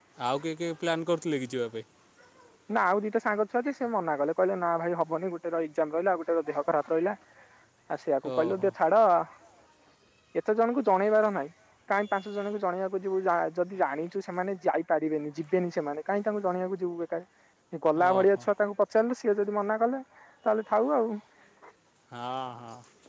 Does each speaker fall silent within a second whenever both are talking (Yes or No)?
Yes